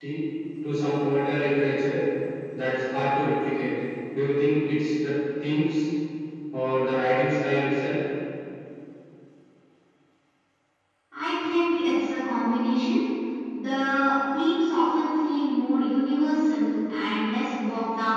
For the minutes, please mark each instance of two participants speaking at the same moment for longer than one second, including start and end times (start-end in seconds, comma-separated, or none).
none